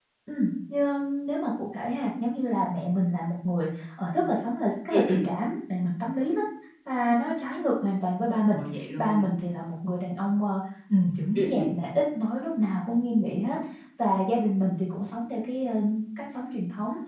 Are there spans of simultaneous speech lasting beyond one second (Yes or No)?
No